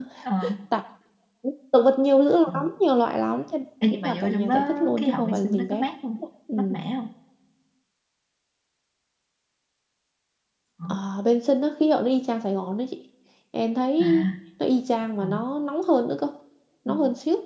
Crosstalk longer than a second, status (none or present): present